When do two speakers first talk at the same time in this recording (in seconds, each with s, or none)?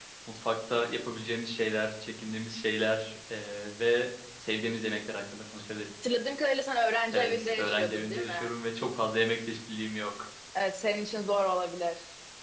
7.1 s